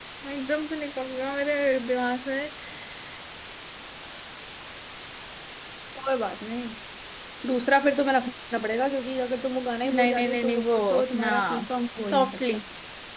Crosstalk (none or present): present